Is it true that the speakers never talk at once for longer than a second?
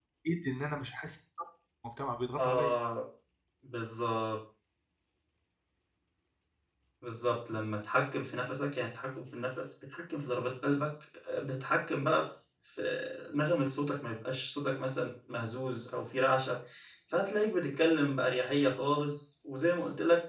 Yes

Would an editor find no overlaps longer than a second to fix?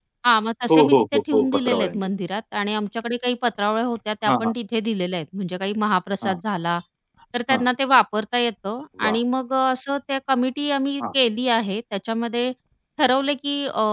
No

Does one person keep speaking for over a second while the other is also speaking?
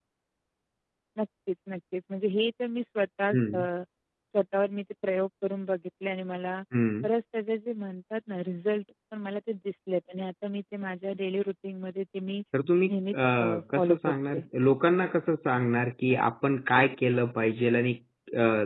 Yes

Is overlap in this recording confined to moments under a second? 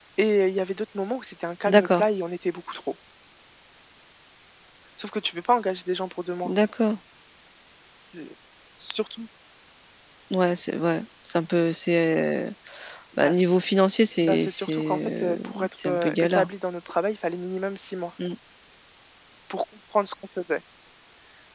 No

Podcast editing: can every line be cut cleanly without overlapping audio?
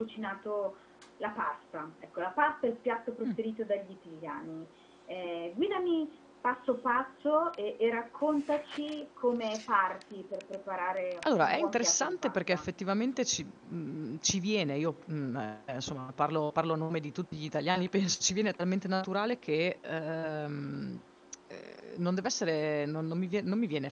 No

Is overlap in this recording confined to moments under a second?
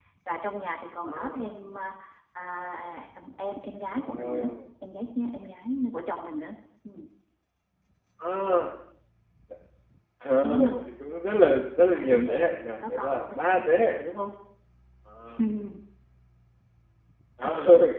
No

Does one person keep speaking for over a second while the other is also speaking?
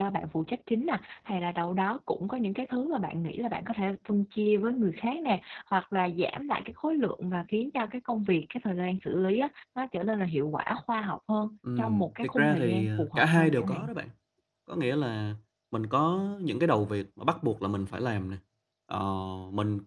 Yes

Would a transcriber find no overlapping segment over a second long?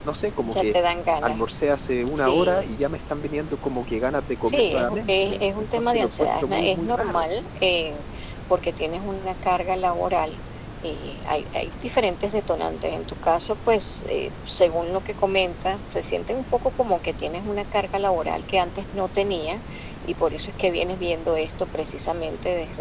No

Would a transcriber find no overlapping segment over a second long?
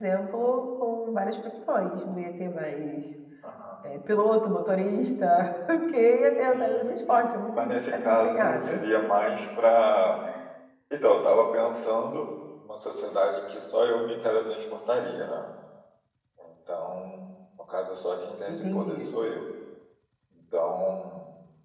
No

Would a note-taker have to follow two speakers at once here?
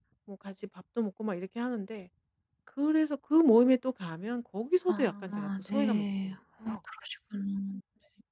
Yes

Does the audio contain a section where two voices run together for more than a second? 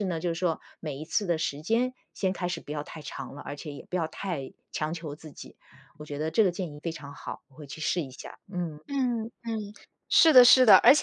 No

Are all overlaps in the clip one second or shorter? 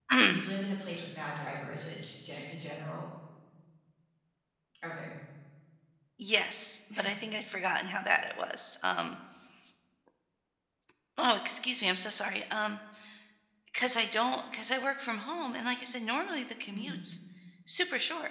Yes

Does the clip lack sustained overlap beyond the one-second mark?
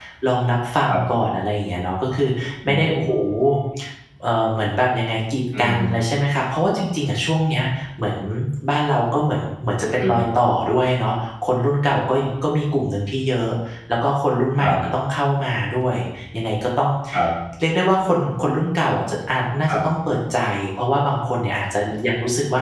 Yes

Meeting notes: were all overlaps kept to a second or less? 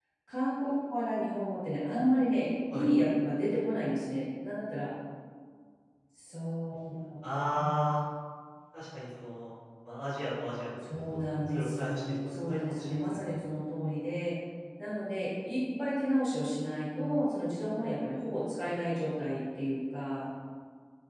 No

